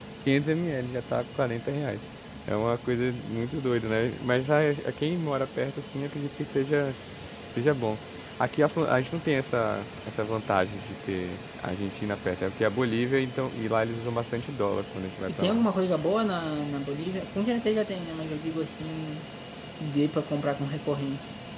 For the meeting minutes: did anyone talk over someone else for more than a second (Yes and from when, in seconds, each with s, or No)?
No